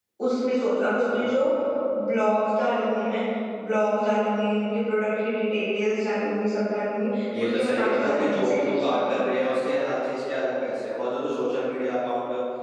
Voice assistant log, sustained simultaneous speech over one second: present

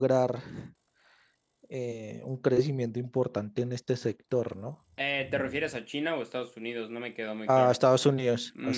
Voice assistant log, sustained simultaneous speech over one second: none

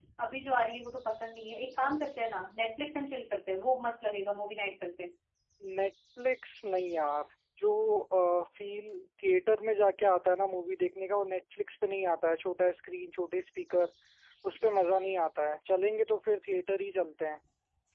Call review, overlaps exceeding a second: none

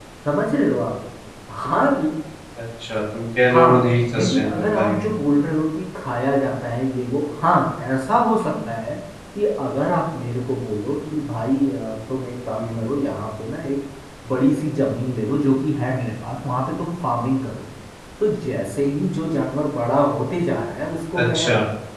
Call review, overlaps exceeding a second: present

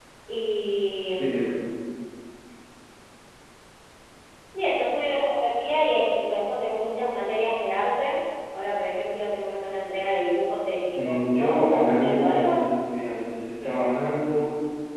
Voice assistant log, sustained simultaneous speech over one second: present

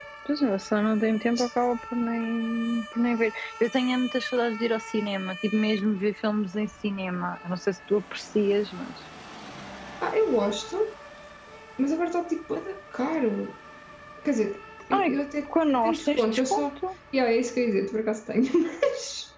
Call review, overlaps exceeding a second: present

